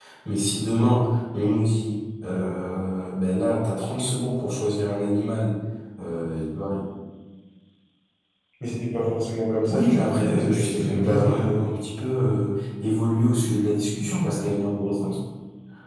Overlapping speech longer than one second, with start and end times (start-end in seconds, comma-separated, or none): 9.7-11.7